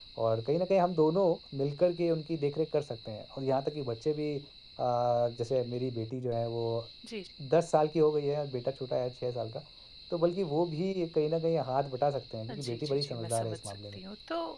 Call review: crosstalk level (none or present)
present